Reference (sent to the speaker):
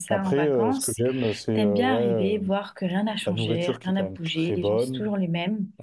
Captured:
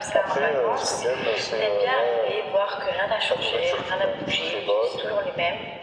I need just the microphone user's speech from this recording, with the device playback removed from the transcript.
none

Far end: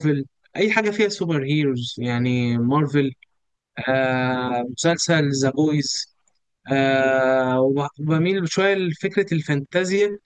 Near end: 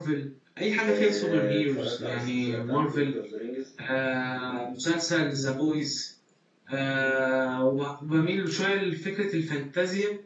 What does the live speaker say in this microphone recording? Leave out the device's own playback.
آه، اتفرجت على السلسلة بتاعت لورد اوف ذا رينجز

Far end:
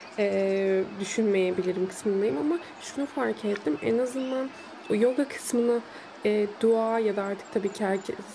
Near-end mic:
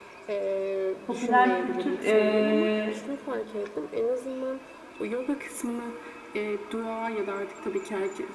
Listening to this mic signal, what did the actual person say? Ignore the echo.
popüler kültür. ee,

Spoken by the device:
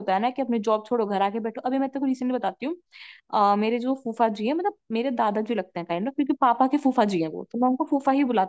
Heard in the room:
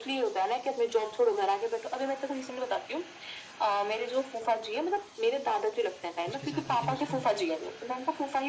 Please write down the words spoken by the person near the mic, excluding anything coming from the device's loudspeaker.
उसके साथ लेकिन उसको

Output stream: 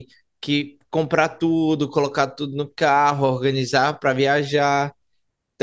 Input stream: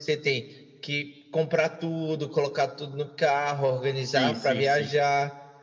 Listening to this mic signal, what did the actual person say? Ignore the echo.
Sim, sim, sim.

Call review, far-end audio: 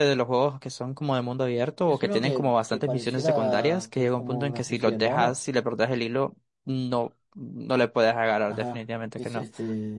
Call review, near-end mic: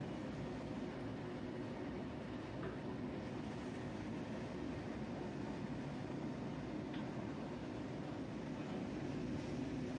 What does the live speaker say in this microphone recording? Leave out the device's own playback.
none

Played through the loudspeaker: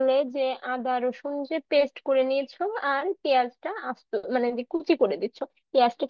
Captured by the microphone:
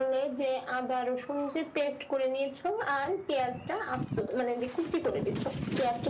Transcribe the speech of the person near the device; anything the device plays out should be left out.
none

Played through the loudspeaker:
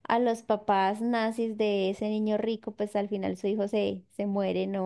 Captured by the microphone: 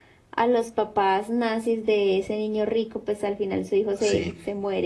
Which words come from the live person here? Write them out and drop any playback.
sí,

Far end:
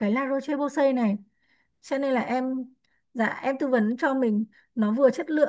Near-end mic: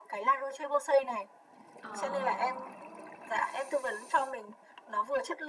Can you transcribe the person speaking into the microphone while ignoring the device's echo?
Ờ

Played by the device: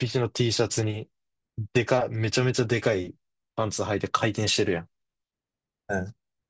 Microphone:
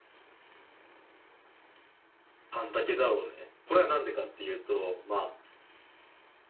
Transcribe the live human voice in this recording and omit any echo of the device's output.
半丈だろうね。これはなんでかっていうと、まあ、

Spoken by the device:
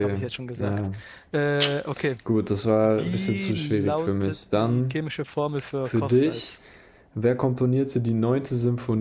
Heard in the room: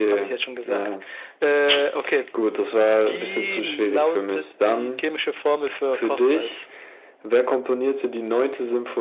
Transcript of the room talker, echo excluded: none

